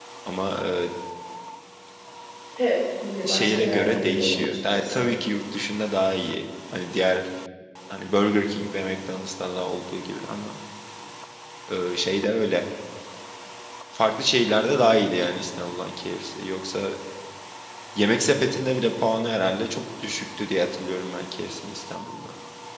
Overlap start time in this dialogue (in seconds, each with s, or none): 3.2 s